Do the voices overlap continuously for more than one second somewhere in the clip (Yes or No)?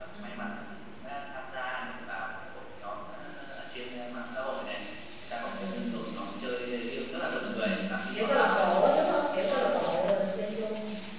Yes